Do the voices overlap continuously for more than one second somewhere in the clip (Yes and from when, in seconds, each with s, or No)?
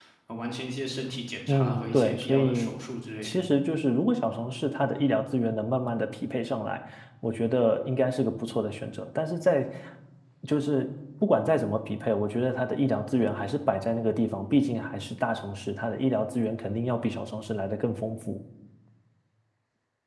Yes, from 1.5 s